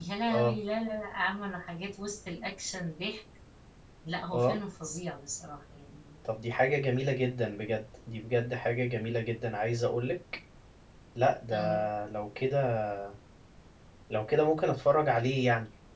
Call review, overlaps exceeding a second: none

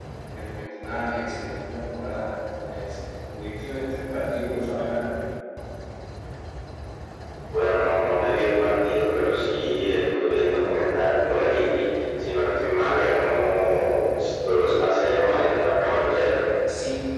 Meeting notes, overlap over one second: none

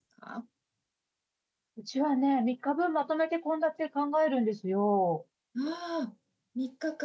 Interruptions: none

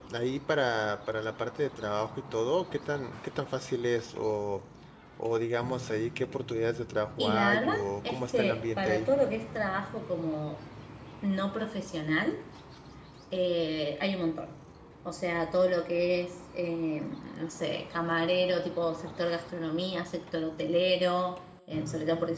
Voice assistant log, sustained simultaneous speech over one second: present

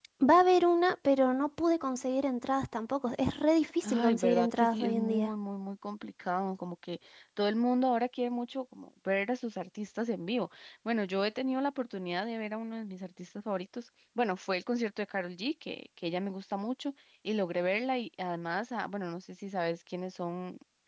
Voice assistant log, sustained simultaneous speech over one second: present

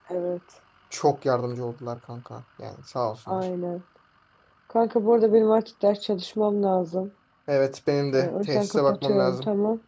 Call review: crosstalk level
present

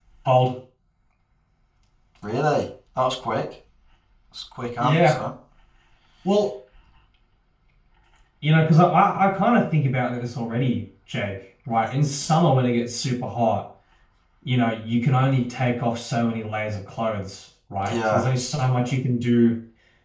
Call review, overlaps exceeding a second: none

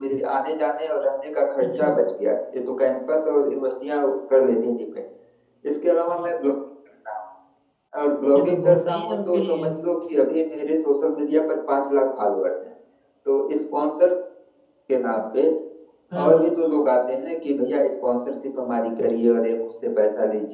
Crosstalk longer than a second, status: present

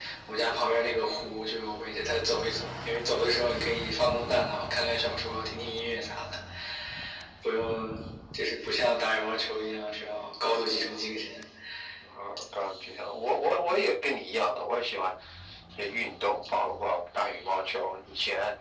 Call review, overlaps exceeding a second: none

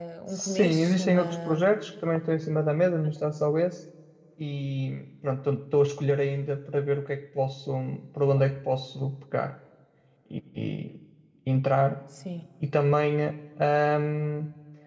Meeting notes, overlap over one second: present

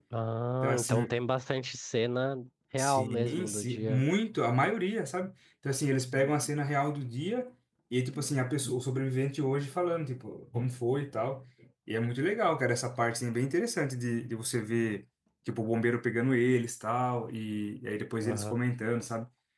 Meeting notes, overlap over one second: present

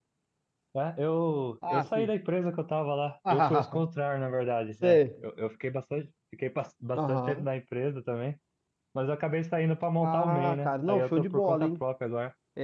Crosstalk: present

